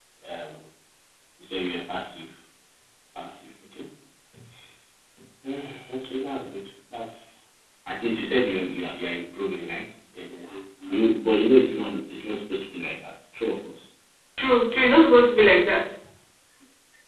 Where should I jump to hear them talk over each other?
none

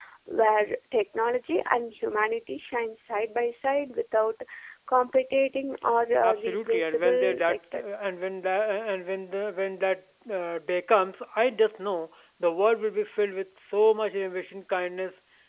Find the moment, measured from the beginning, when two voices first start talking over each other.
6.2 s

